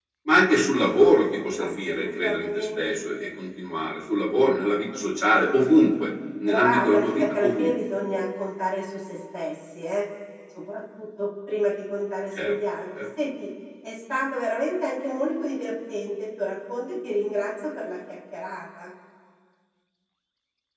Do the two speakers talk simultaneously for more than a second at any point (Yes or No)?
Yes